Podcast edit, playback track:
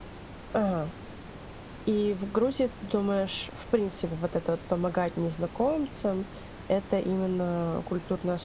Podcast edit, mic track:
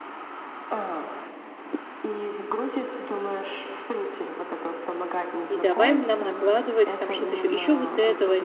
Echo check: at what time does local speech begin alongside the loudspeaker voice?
5.5 s

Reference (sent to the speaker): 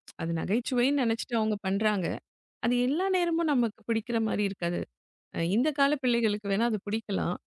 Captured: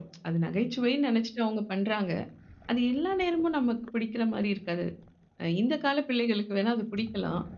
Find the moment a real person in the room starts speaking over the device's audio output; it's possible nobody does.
none

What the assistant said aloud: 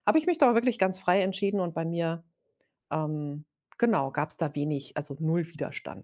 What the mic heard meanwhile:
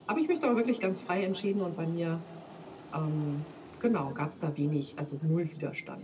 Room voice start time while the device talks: none

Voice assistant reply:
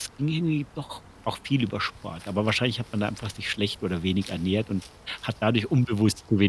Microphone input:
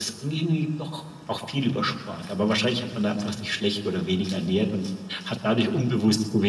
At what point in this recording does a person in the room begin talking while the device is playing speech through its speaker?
none

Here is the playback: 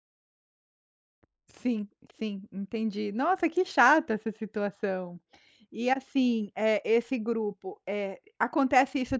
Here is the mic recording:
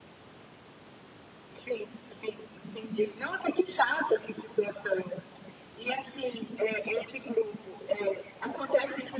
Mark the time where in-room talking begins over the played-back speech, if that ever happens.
none

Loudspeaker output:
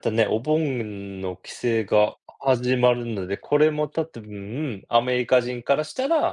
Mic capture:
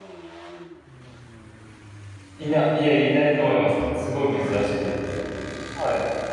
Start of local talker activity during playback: 2.4 s

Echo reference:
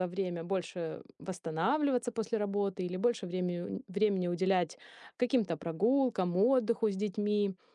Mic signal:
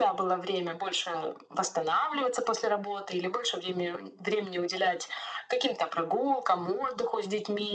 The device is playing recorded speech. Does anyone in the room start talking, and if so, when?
none

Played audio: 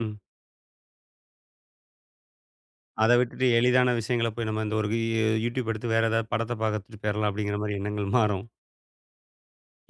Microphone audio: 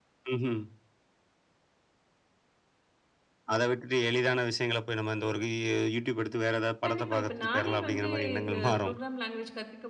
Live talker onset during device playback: 6.8 s

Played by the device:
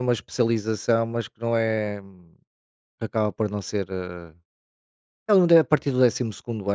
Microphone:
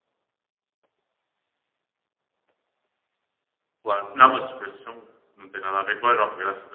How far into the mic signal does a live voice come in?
3.8 s

